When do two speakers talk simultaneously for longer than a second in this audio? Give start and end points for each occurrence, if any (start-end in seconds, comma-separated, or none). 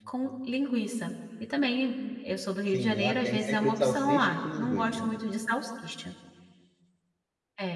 2.7-5.2